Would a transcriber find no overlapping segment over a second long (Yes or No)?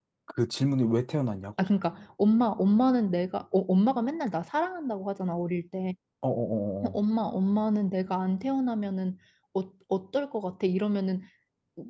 Yes